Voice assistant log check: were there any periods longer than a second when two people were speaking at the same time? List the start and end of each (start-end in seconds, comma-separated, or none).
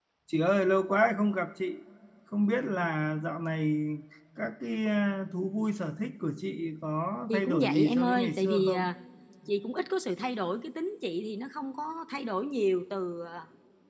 7.3-8.9